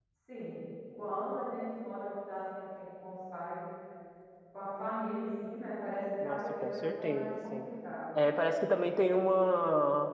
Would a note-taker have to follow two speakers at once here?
Yes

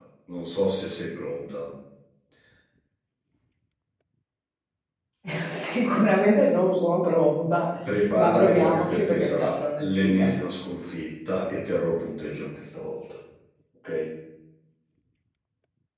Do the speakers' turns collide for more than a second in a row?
Yes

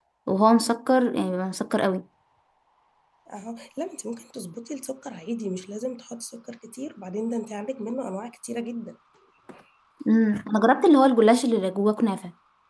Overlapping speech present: No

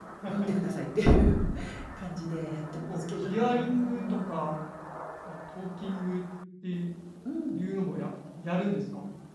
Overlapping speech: Yes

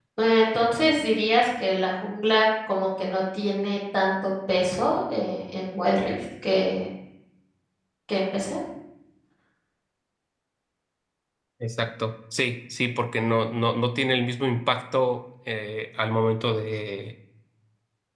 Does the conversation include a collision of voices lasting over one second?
No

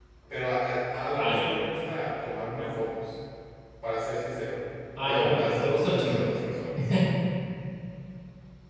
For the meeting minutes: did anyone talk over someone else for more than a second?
Yes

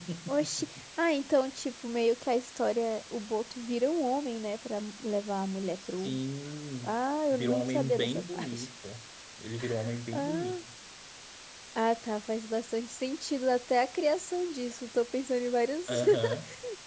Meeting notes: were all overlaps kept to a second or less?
No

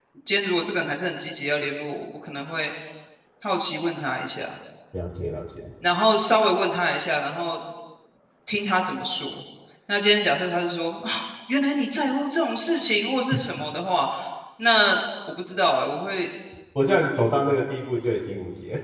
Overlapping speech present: No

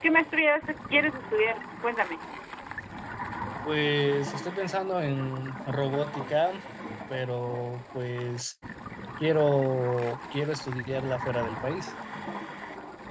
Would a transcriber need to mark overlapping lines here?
No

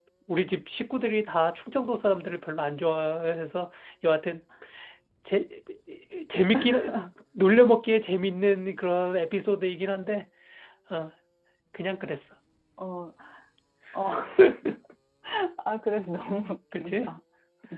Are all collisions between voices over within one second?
Yes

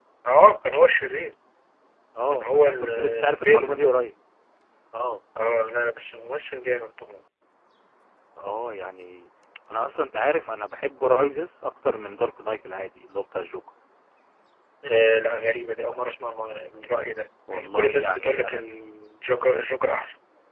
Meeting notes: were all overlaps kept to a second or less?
No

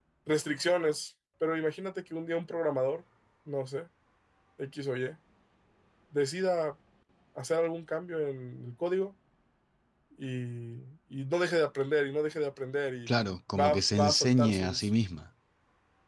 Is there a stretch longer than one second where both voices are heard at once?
Yes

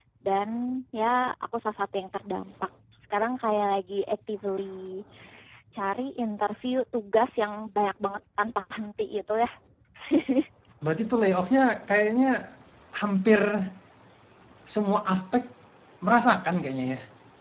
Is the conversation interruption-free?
Yes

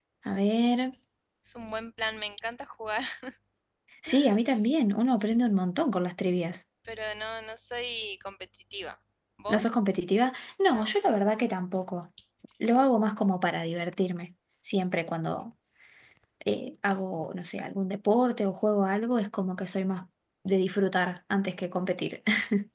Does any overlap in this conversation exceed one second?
No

